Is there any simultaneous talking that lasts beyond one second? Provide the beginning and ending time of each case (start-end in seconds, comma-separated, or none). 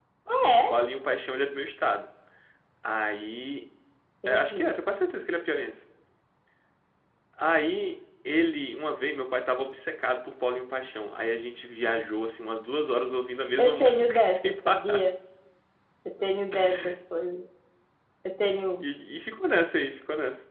13.6-15.0